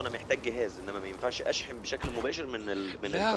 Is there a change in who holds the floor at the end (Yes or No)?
Yes